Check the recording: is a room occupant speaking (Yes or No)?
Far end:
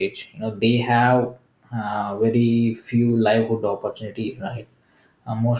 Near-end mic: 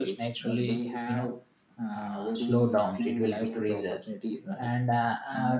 Yes